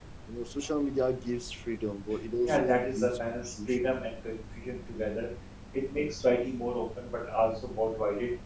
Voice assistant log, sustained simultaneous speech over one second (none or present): present